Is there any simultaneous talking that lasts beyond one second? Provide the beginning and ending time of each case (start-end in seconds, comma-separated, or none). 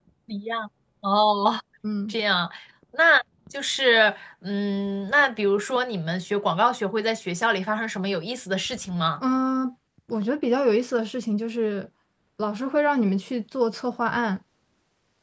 none